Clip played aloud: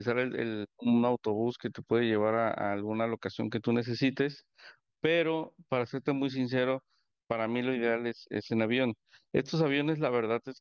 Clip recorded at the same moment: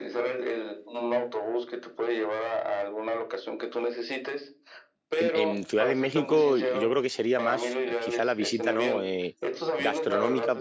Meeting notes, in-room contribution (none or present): present